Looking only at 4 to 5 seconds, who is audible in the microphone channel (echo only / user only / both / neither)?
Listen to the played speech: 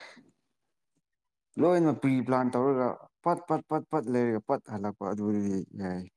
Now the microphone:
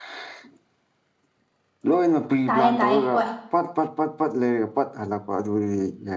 echo only